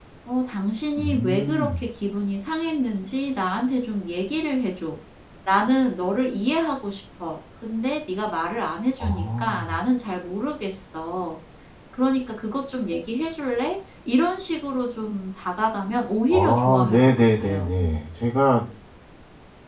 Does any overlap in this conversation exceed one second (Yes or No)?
Yes